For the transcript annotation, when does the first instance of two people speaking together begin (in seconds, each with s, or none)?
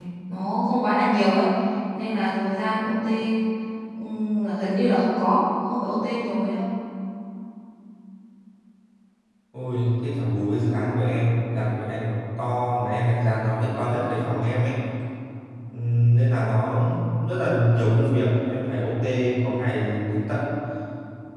none